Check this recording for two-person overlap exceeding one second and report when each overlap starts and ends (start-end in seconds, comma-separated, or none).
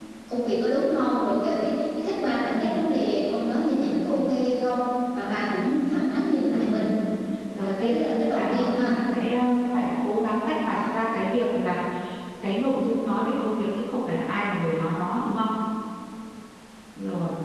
7.6-9.0